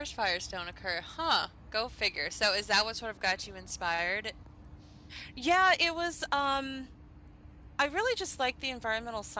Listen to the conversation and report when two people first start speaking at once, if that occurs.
none

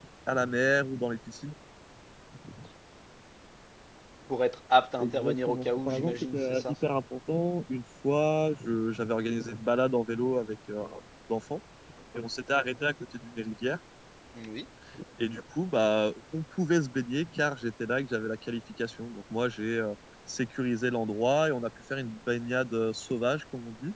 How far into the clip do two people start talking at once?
5.0 s

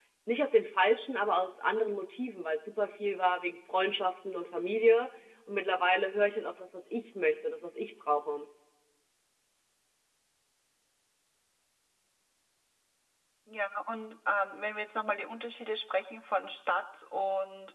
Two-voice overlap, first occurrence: none

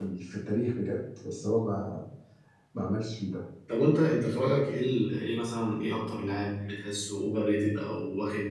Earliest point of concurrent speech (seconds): none

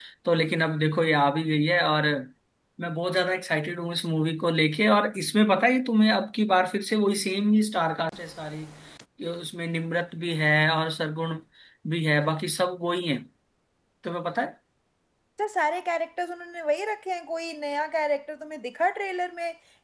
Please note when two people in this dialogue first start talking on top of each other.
none

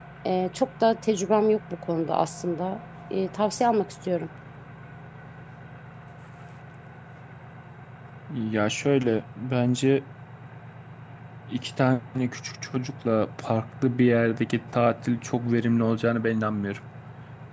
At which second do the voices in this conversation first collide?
none

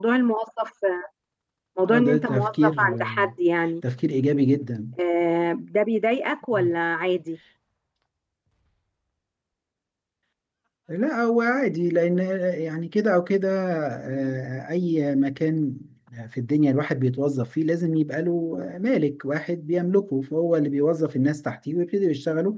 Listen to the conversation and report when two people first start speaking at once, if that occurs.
1.9 s

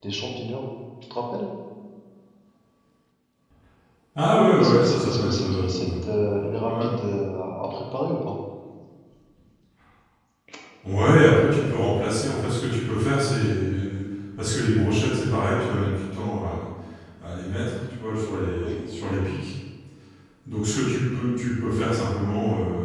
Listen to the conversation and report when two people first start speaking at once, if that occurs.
4.6 s

